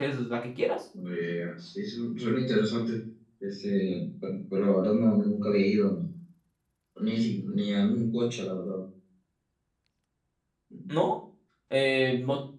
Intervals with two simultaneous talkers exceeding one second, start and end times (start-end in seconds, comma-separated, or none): none